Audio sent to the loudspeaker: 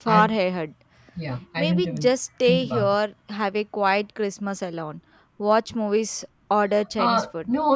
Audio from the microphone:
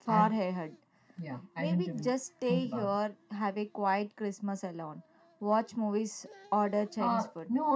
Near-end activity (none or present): none